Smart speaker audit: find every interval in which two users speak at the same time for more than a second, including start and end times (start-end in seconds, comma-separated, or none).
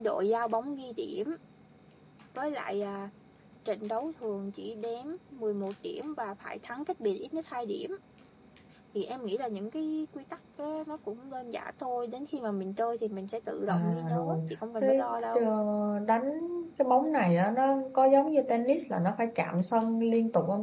13.7-15.4